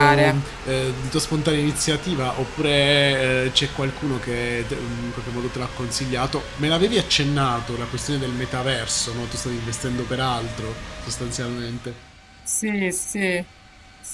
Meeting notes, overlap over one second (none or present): none